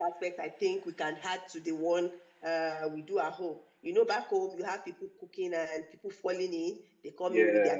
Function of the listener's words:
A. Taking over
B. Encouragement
B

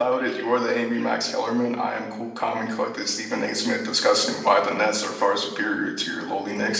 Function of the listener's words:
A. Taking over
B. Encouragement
A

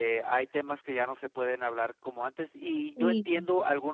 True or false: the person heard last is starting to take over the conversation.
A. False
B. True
A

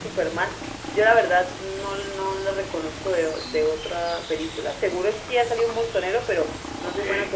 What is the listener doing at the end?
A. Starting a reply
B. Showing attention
B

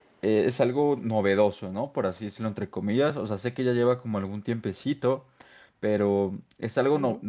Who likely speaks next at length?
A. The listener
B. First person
B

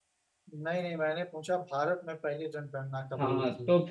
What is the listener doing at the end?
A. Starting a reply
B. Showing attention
A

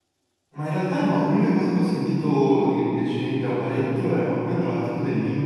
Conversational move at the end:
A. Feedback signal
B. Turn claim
A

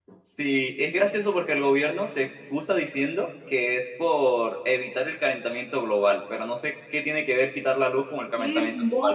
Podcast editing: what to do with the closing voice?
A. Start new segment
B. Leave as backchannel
A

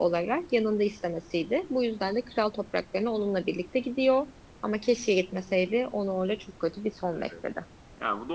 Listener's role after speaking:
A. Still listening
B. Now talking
B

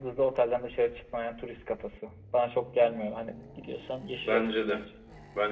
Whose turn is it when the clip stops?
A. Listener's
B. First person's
A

